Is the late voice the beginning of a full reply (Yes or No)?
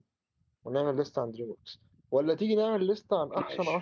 No